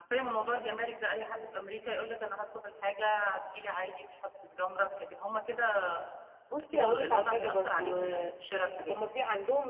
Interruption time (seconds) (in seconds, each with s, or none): 6.7 s